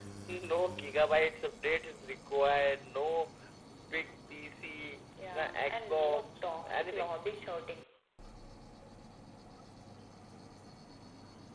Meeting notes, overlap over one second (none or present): present